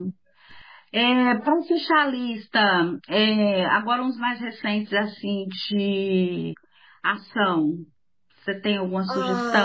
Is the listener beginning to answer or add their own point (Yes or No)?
Yes